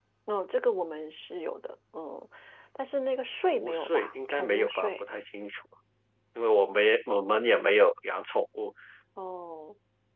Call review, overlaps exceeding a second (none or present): present